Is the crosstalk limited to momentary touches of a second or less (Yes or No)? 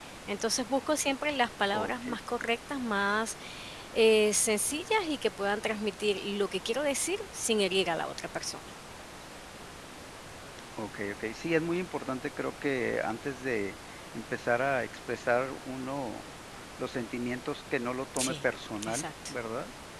Yes